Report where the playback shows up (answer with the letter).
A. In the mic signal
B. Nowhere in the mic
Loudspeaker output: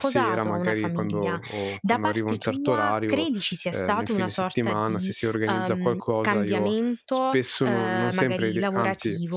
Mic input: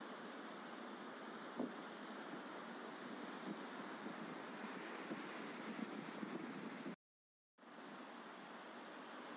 B